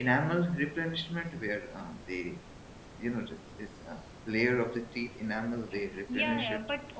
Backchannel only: No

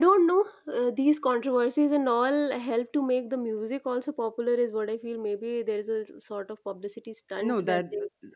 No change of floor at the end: No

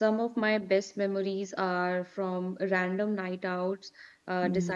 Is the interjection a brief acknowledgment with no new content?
Yes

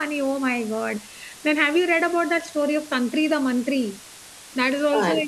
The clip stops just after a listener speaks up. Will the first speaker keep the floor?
Yes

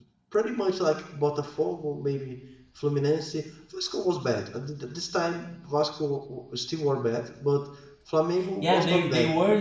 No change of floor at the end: No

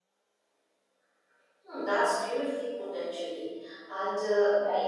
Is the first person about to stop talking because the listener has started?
No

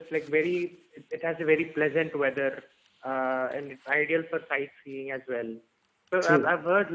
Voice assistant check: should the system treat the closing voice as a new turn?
No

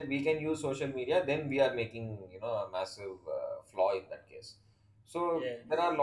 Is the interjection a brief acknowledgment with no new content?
Yes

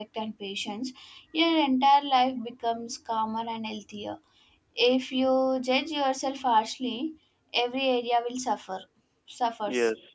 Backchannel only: No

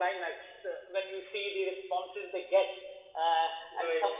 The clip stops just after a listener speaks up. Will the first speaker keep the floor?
Yes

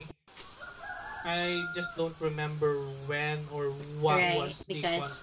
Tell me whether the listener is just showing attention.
No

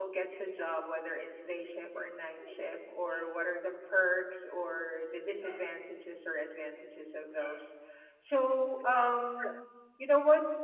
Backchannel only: Yes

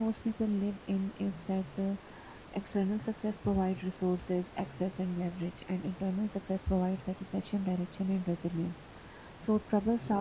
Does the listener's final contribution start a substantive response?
No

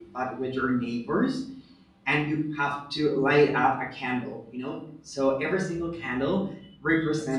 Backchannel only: Yes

